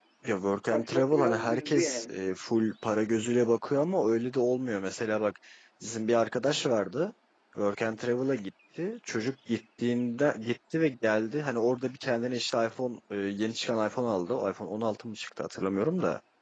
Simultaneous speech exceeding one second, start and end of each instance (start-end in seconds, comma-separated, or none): 0.7-2.1